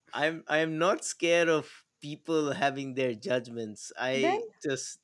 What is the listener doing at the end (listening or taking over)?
listening